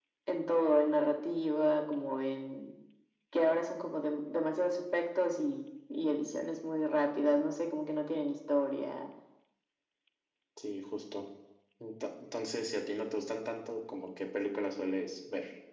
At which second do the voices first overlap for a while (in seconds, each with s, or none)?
none